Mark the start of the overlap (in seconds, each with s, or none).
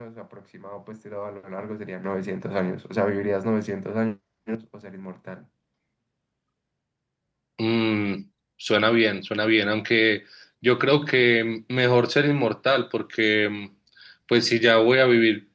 none